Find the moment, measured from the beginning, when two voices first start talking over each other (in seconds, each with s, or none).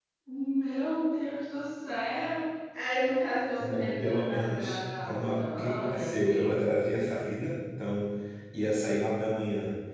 3.6 s